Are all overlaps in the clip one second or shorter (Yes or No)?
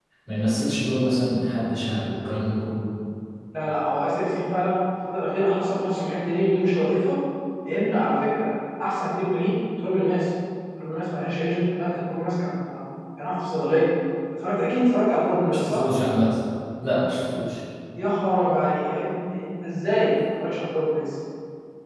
Yes